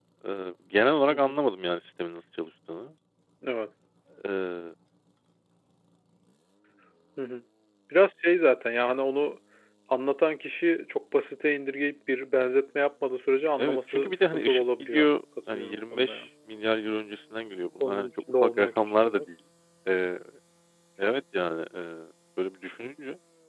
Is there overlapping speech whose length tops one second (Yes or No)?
Yes